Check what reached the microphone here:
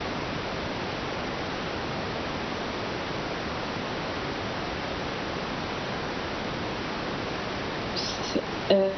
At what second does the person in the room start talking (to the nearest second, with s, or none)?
8 s